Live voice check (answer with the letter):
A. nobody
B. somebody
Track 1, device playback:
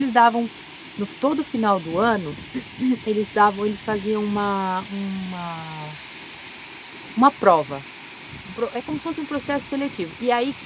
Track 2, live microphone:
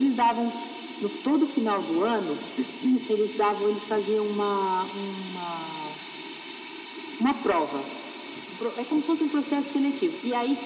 A